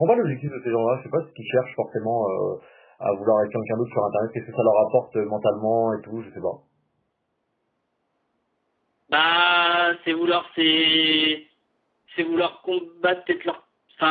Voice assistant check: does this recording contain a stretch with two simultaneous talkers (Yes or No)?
No